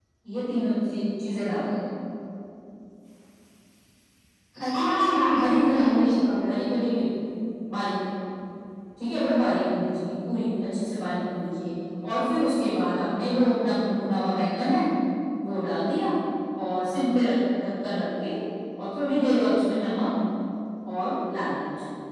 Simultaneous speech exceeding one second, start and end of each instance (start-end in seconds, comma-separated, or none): 4.7-6.1